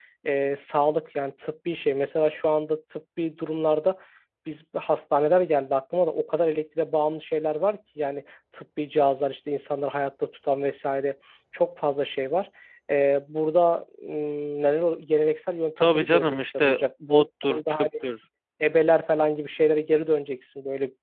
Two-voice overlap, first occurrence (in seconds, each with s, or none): 15.8 s